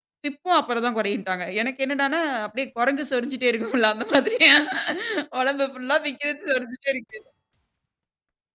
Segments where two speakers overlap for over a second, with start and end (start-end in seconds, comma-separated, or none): none